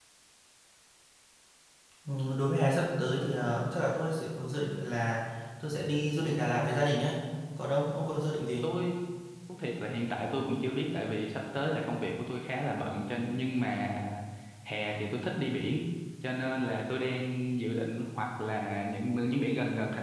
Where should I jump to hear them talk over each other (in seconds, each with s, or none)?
none